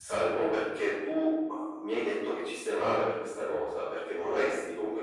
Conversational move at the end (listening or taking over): listening